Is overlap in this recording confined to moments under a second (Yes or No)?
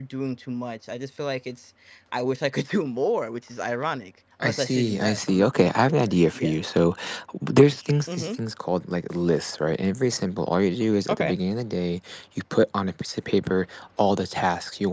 No